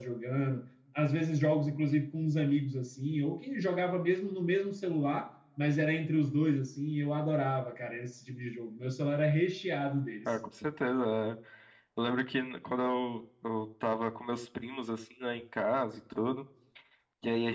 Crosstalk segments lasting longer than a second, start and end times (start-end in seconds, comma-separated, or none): none